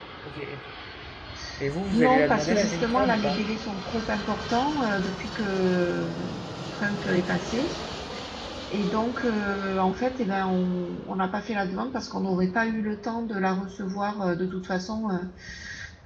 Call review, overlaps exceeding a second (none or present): present